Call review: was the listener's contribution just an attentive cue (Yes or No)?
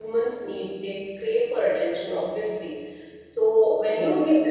Yes